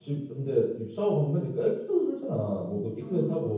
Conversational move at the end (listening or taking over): listening